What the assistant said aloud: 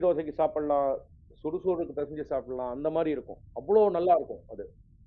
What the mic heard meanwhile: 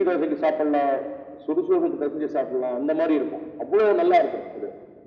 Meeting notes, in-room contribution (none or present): none